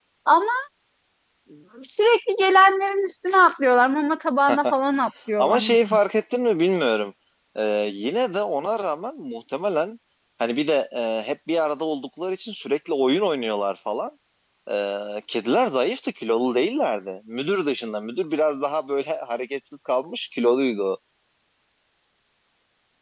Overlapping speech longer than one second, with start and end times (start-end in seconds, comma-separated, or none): none